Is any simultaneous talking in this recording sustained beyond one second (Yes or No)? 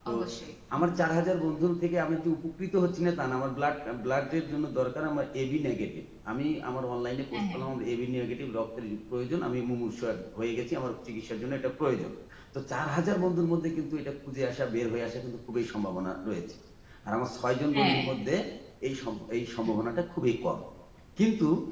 No